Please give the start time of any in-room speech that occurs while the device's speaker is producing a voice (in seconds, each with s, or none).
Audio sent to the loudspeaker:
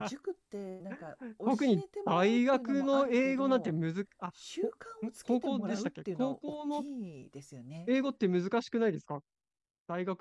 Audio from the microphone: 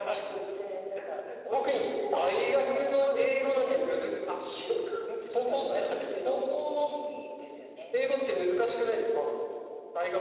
none